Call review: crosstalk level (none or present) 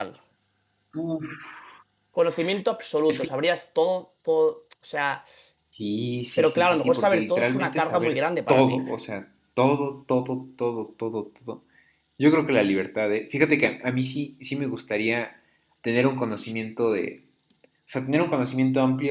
present